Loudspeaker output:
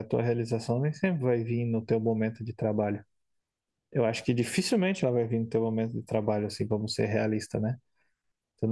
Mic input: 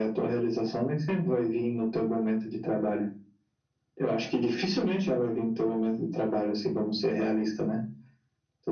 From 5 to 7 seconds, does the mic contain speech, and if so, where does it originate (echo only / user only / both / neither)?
echo only